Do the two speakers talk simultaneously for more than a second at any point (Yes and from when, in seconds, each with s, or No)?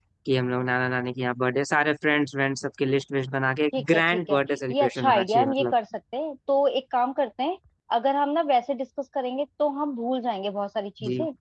Yes, from 3.7 s